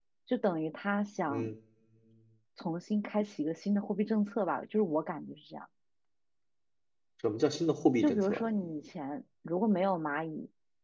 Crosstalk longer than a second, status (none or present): none